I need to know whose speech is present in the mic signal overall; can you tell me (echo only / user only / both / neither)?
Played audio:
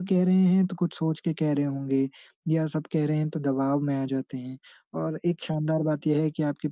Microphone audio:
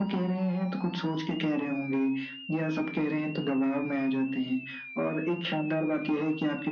echo only